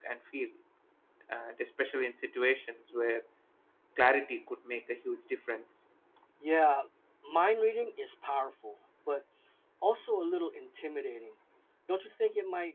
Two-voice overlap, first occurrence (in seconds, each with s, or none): none